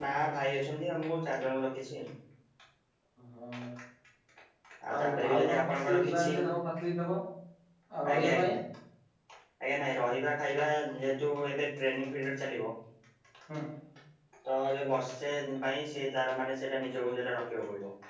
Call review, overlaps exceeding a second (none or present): present